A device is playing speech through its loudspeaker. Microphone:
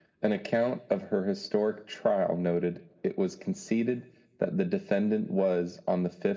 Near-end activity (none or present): none